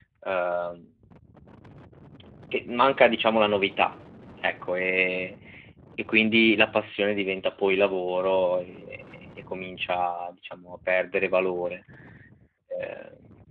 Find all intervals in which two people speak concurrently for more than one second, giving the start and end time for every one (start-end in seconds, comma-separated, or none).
none